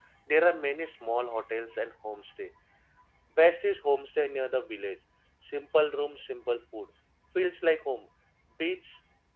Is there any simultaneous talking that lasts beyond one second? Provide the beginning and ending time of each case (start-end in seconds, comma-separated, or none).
none